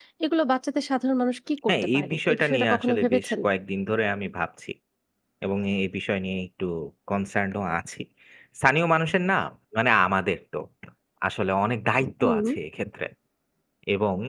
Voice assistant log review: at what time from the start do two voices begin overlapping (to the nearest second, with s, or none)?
2 s